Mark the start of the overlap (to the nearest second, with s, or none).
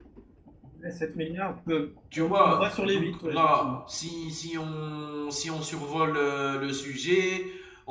2 s